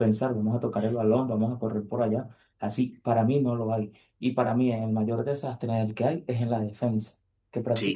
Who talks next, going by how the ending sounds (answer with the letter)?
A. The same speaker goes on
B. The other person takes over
A